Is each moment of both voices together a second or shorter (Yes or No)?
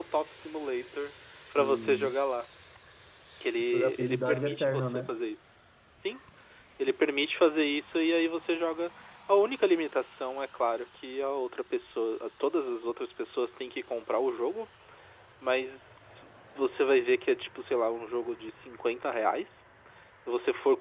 No